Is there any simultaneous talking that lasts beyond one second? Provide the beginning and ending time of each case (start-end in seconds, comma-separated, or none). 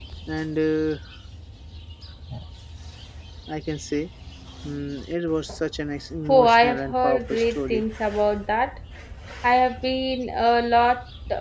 6.3-7.8